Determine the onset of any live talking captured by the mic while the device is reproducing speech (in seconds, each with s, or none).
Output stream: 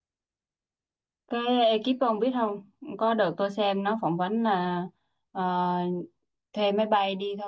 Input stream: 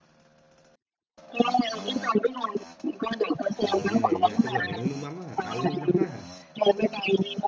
3.6 s